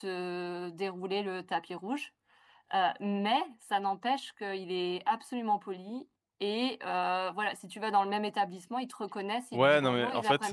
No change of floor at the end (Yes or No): No